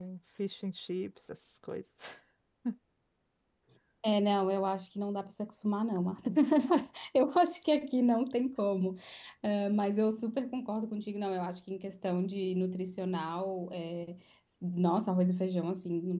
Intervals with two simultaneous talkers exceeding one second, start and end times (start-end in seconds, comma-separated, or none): none